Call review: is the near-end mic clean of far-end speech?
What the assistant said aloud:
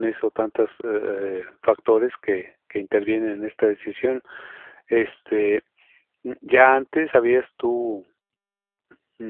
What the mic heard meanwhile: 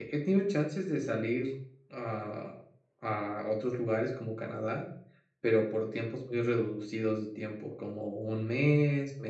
Yes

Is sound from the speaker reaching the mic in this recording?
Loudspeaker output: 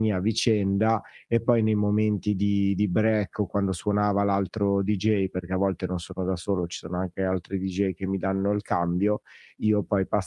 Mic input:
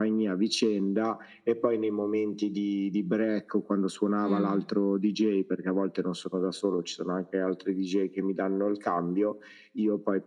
Yes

